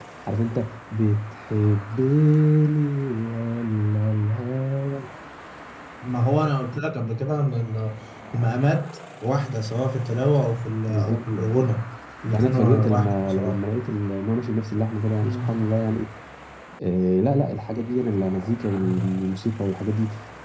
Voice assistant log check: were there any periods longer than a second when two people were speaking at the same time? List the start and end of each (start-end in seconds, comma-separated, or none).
12.3-13.6